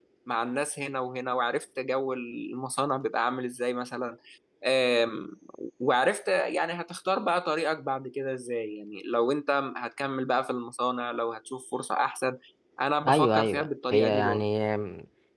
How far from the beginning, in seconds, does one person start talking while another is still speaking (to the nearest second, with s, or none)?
13 s